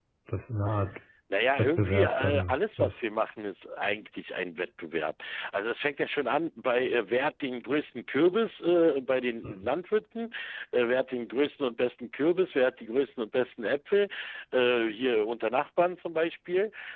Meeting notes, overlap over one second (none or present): present